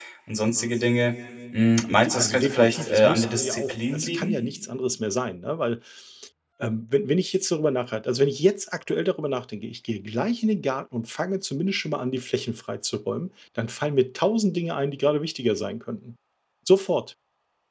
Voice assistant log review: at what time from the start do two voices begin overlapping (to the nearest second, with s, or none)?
2 s